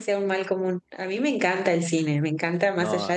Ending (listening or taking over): listening